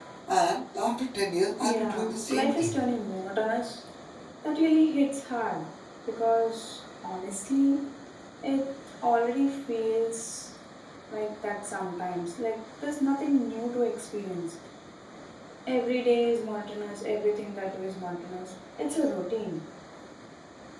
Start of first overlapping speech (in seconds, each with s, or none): 1.6 s